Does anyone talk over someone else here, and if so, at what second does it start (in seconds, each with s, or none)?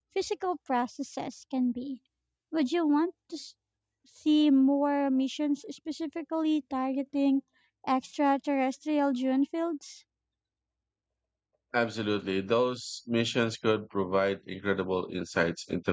none